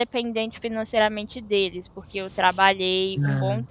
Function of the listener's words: listening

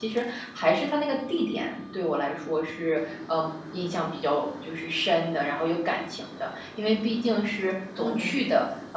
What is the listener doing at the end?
listening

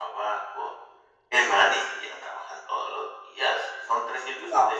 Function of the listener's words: listening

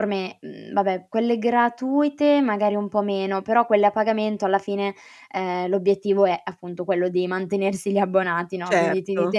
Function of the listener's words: listening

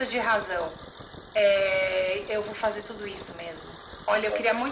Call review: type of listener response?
listening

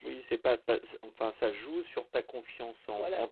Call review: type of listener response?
listening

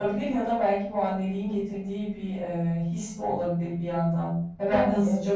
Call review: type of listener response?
listening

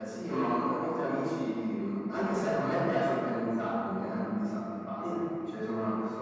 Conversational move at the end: listening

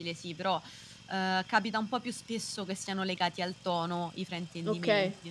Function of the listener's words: taking over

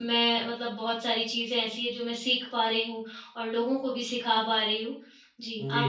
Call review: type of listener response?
taking over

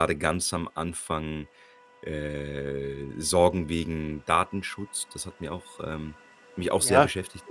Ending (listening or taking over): taking over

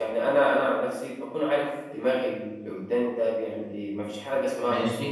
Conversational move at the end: listening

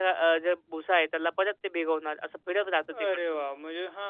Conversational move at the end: taking over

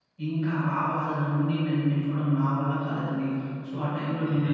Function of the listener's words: listening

